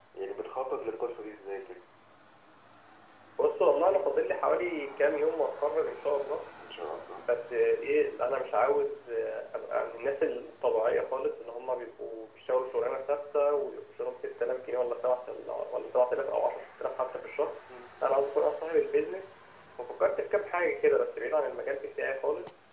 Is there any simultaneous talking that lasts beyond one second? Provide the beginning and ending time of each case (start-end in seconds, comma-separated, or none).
none